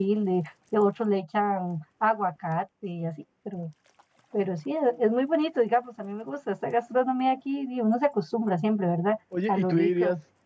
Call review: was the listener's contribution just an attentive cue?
No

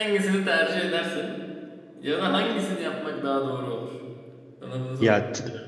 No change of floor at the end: No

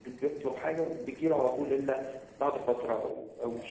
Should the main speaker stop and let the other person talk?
Yes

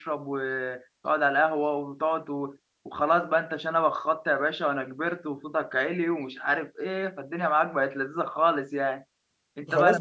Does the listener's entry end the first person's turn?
Yes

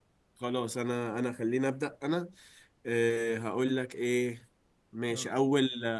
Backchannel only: Yes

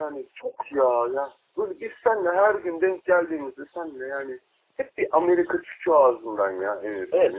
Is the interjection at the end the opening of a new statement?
Yes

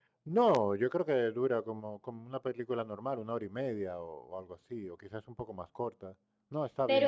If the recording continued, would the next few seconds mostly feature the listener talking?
Yes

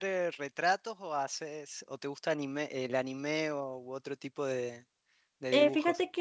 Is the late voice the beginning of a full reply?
Yes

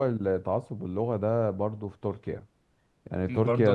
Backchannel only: Yes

